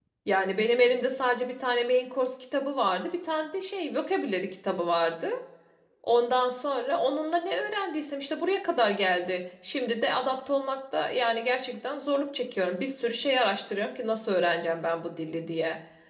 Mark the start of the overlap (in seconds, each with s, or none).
none